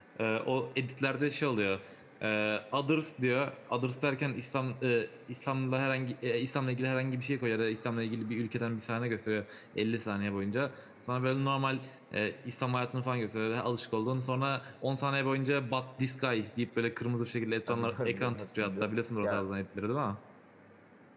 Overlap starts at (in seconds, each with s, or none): 17.7 s